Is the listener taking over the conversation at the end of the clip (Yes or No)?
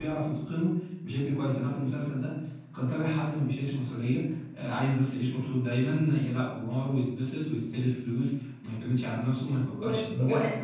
Yes